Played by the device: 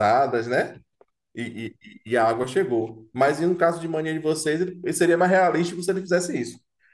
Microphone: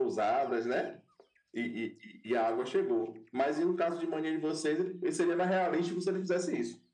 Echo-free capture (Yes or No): No